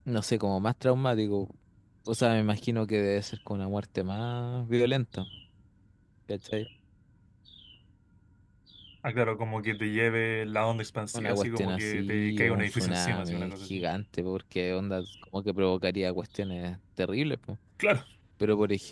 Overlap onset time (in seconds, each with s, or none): 11.1 s